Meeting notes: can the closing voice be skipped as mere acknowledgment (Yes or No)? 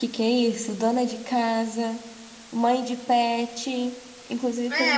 No